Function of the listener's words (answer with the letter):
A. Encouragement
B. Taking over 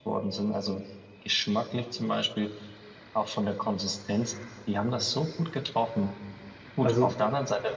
A